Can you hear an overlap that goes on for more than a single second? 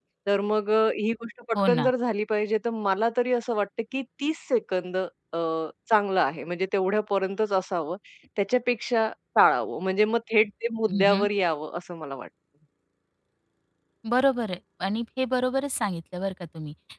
No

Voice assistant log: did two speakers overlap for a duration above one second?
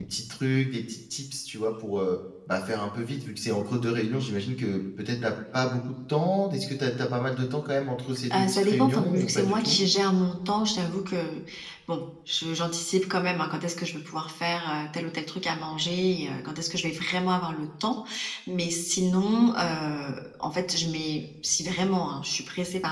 Yes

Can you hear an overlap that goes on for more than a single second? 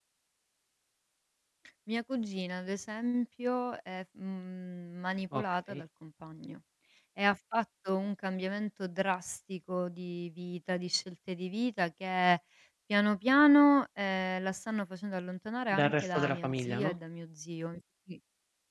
Yes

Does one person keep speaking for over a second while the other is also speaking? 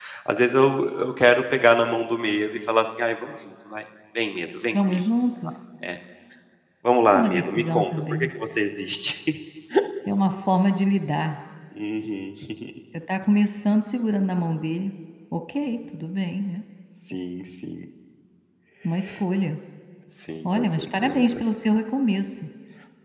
Yes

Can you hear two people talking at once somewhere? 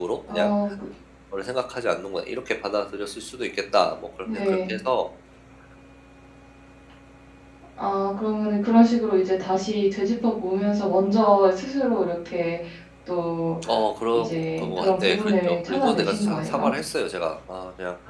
Yes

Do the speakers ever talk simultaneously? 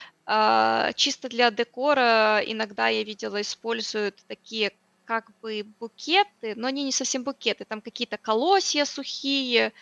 No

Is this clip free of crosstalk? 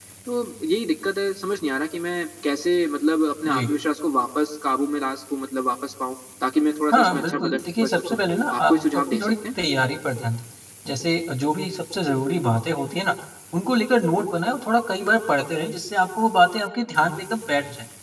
No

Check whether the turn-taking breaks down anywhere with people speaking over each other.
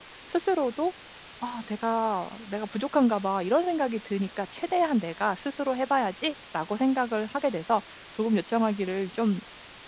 No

